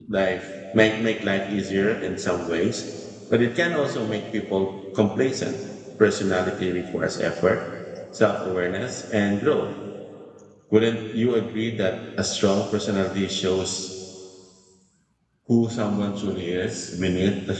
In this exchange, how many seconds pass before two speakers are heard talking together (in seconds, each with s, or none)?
none